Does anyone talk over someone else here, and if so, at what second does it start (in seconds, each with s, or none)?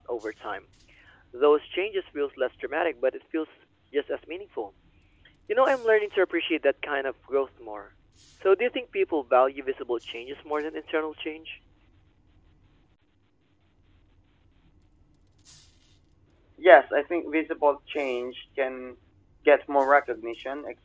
none